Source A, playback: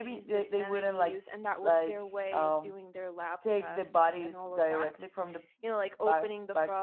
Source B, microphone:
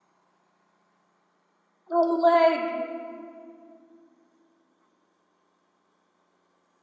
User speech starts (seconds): 2.0 s

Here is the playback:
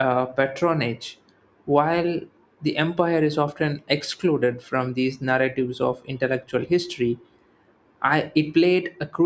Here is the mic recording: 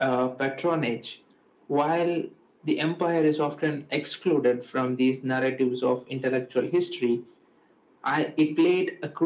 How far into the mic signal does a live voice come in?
none

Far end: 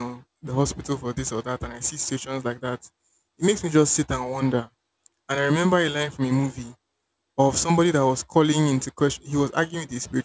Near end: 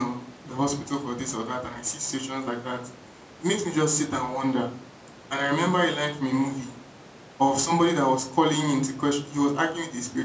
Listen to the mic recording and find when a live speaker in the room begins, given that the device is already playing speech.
none

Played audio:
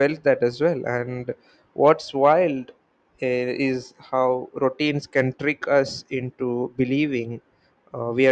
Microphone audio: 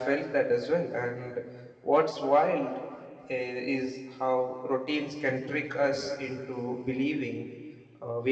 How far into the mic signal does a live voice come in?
none

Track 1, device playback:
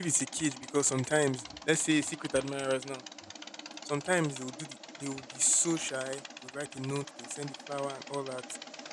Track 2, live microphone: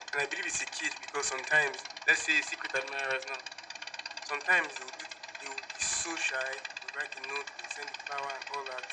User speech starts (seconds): none

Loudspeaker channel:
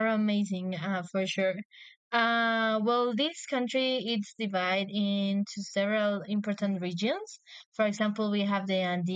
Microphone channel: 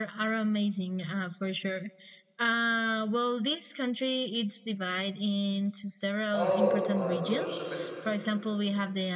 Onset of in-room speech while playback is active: 6.3 s

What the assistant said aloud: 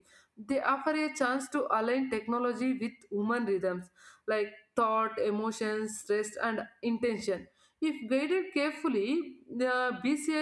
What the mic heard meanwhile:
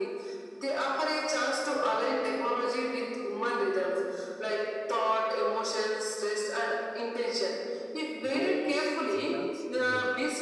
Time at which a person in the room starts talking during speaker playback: 8.3 s

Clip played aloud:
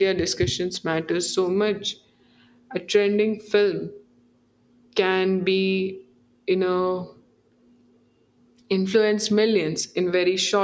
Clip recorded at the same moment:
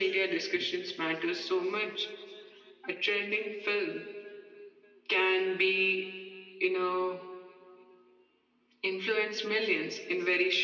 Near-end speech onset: none

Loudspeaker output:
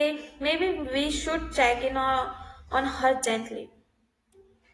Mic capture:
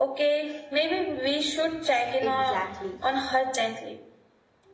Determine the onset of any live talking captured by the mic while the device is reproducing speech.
2.2 s

